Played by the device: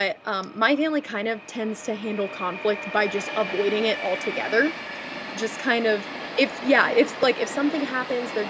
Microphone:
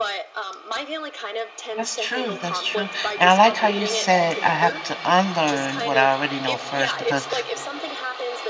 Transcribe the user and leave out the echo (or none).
That's true, that's true. And I like how you said I have to unlearn what I already know first because